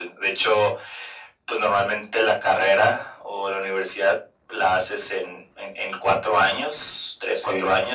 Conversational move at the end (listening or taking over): listening